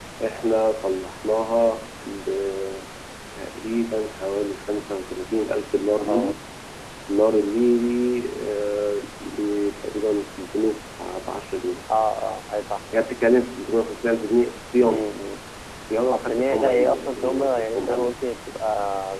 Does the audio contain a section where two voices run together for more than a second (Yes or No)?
Yes